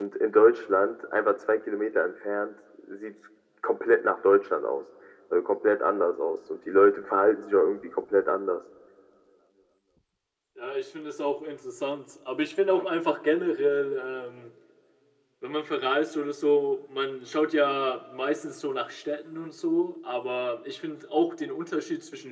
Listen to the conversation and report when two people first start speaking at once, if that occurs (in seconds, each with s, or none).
none